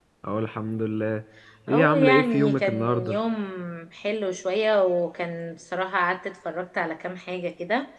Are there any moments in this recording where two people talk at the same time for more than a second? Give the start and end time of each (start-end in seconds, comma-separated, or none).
1.7-3.2